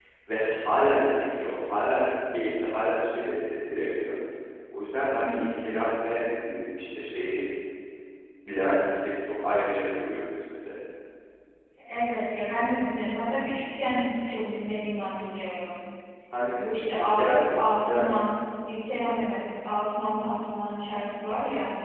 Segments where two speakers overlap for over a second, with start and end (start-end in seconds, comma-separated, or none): 16.5-18.1